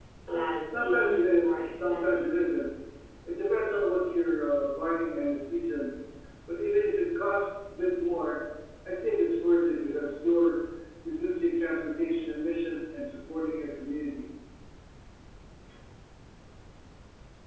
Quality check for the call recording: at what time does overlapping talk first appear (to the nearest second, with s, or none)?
1 s